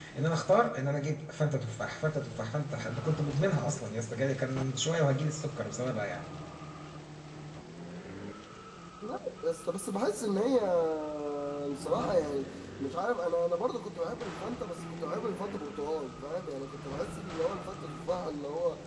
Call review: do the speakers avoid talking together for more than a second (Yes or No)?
Yes